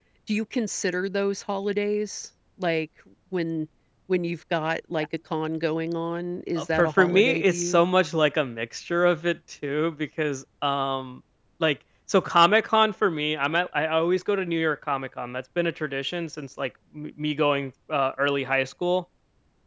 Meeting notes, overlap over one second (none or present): present